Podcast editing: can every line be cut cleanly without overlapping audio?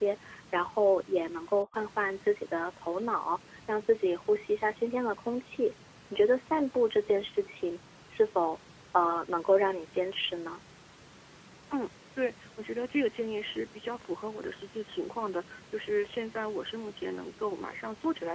Yes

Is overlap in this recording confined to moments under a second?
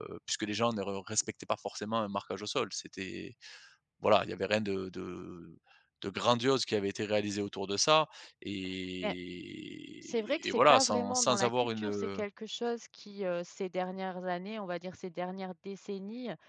No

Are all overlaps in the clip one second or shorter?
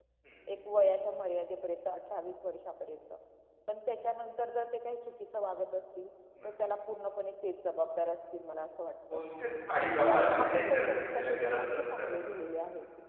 No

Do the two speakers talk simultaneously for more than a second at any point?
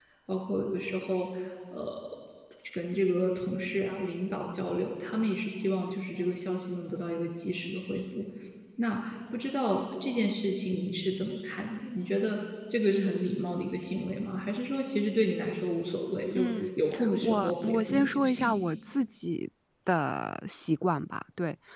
Yes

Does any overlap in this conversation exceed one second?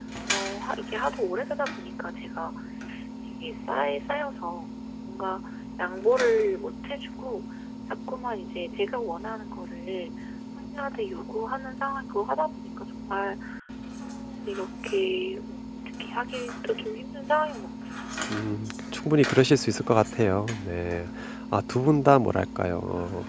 No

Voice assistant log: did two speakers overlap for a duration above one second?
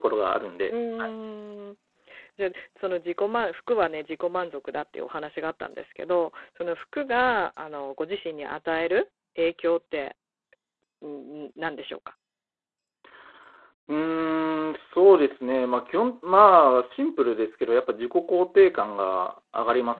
No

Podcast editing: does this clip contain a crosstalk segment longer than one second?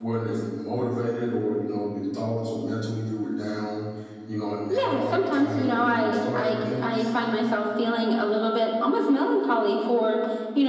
Yes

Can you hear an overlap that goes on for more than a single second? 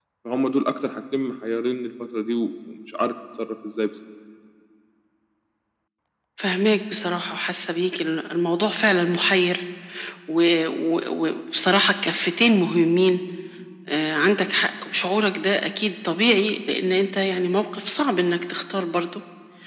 No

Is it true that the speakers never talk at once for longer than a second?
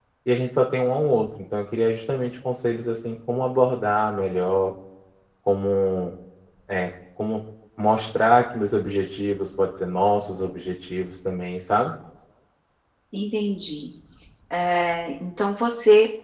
Yes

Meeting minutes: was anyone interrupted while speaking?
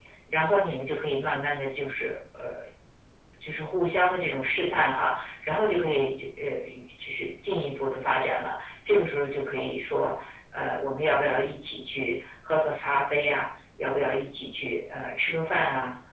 No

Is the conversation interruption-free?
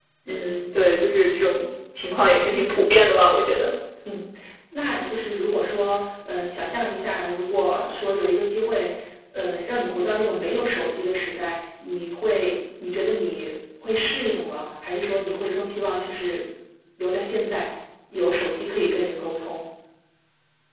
Yes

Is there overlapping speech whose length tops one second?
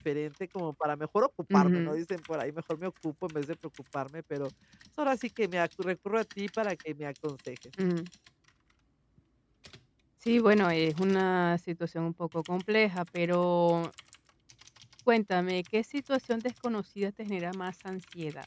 No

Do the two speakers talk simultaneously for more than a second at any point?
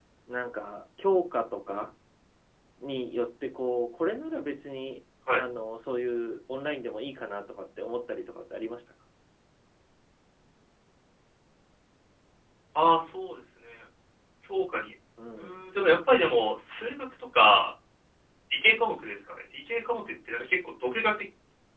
No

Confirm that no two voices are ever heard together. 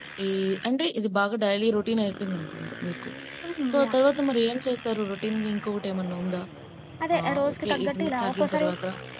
No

